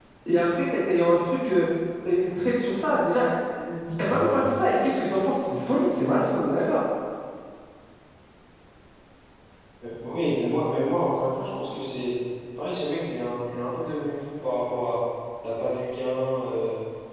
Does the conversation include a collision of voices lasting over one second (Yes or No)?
No